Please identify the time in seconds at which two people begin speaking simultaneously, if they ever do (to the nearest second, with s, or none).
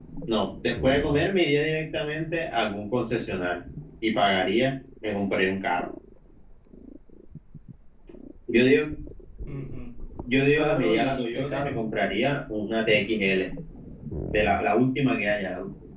10 s